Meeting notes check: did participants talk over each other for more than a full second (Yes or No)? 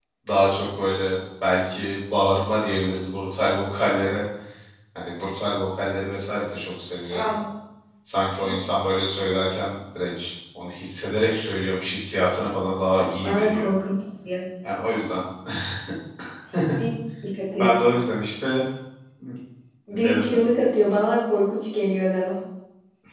No